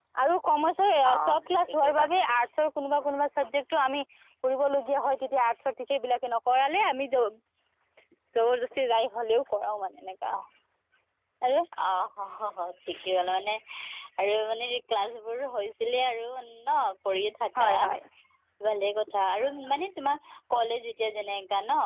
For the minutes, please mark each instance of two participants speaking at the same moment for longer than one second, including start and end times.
1.2-2.5

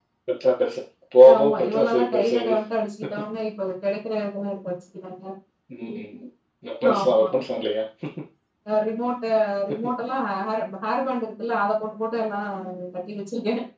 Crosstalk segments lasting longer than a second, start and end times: 1.3-2.6

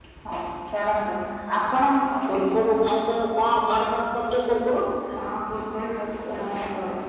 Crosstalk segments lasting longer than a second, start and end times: none

